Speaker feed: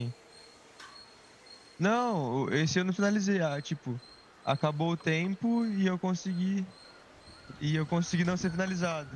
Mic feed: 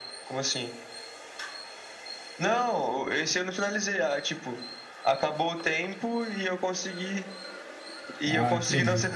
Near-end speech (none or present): present